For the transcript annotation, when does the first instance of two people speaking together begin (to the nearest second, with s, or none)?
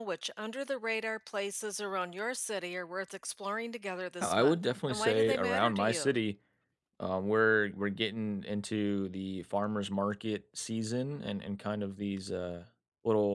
4 s